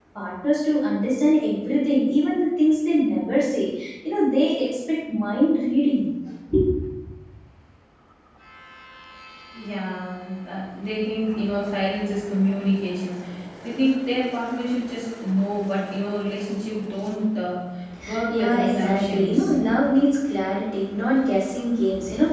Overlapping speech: Yes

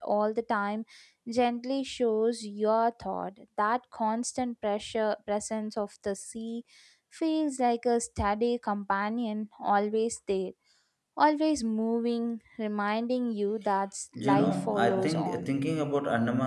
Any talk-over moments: Yes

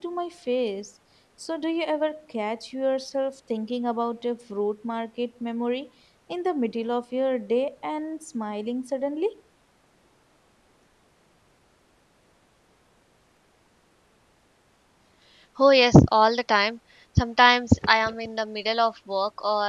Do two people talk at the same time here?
No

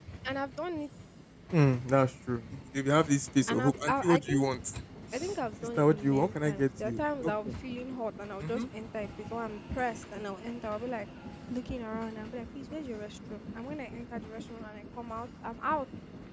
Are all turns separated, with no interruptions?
No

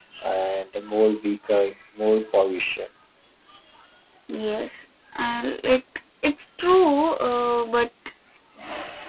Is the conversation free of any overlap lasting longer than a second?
Yes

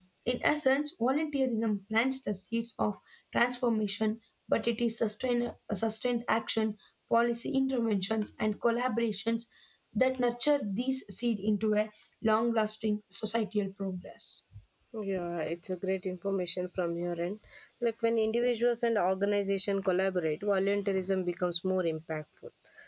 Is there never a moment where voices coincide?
Yes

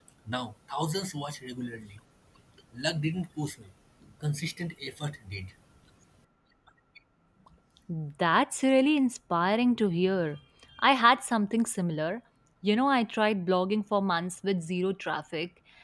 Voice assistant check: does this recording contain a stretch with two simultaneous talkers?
No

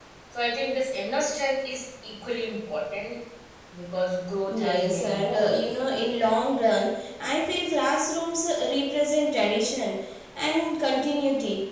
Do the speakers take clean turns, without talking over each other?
No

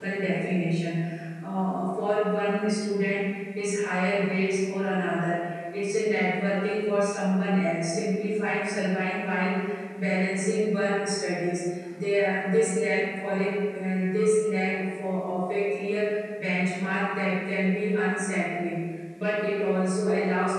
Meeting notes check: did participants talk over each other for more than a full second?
No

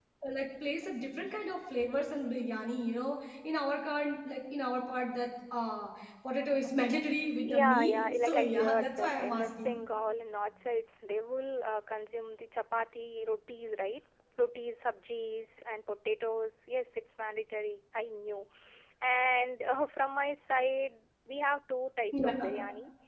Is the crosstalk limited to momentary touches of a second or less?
No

